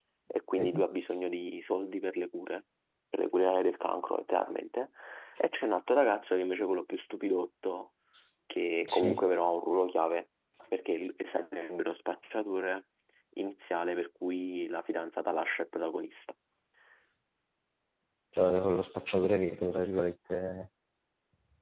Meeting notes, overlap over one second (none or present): none